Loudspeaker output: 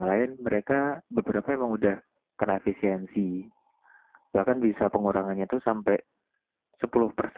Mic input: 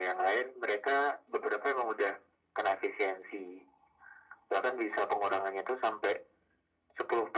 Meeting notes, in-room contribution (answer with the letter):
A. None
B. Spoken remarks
A